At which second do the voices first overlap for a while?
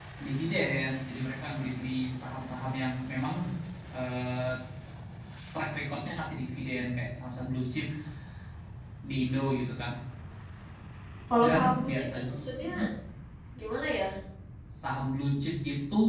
11.4 s

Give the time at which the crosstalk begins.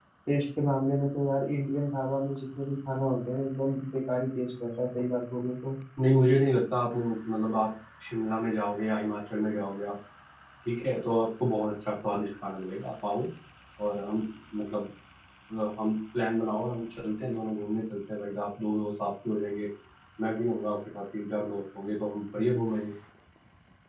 none

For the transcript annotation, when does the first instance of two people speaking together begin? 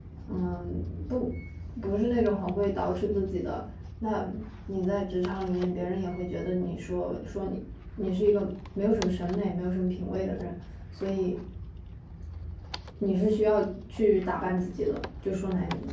none

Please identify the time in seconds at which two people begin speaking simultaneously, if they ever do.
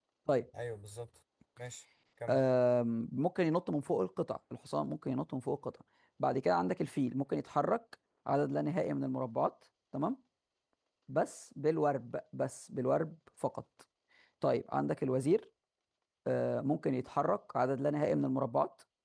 none

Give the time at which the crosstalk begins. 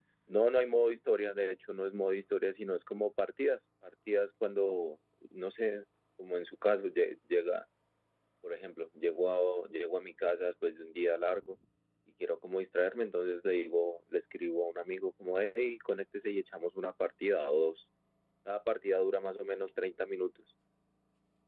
none

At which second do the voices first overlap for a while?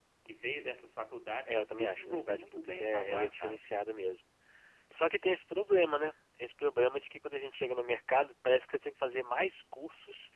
1.5 s

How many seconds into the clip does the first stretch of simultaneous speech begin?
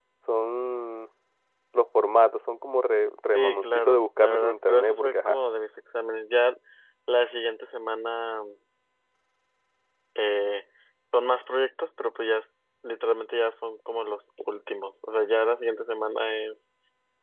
3.4 s

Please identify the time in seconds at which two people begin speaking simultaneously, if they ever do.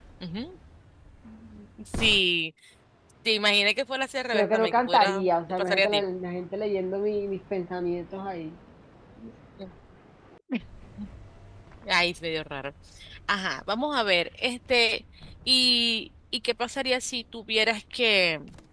4.3 s

